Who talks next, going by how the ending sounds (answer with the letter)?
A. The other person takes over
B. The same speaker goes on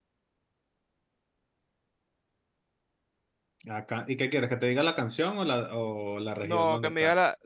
A